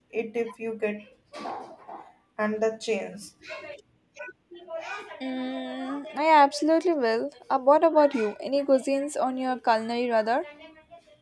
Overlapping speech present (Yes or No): No